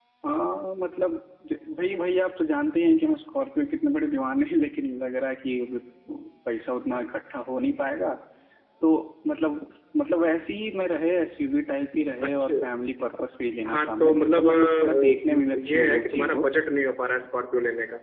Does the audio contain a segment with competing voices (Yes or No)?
Yes